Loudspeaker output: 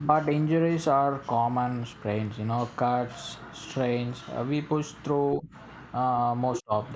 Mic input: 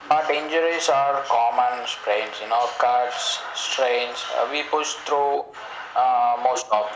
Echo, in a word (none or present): present